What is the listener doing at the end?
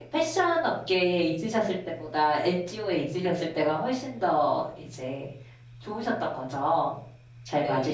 taking over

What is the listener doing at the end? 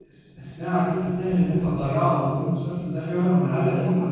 listening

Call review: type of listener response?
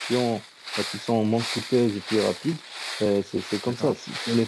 listening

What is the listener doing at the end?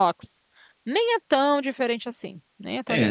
taking over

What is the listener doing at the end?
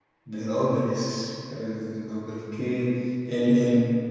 listening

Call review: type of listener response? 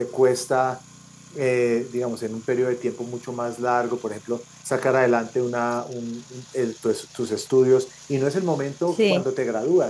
listening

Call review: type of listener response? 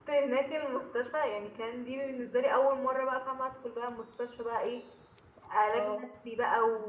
listening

